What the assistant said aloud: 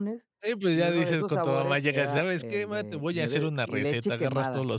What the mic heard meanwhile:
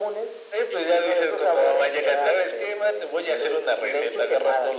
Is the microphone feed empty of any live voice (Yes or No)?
Yes